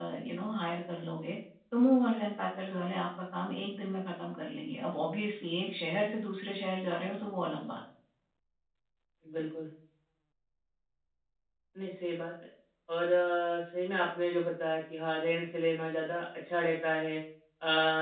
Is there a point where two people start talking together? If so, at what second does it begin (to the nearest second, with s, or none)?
none